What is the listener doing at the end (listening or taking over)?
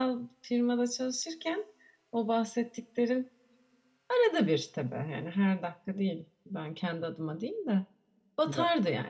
listening